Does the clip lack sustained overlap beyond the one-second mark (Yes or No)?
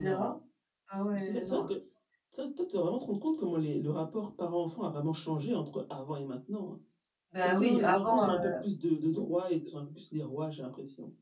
No